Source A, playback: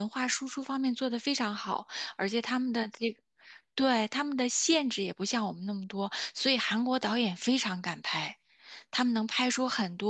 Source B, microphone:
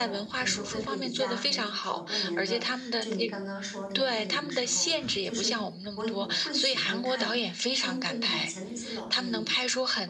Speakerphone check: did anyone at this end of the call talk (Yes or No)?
Yes